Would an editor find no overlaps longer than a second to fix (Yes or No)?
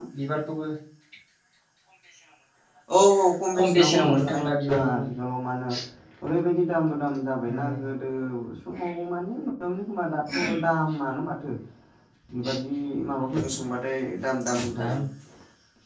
No